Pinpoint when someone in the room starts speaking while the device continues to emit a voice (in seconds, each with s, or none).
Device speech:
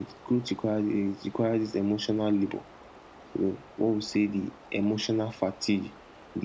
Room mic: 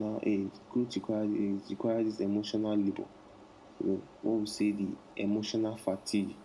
none